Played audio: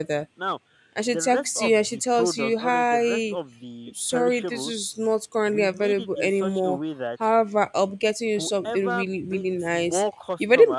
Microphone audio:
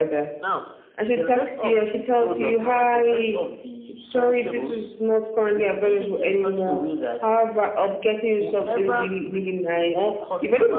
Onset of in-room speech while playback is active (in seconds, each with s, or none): none